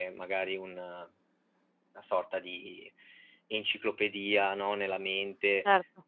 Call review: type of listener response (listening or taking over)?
listening